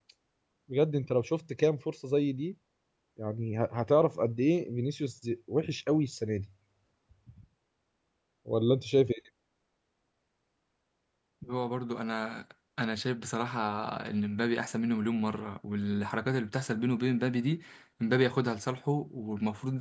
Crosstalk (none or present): none